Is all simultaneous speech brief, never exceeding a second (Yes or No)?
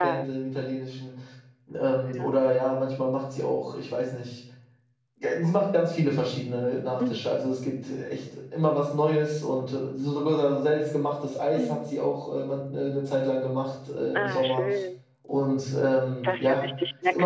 Yes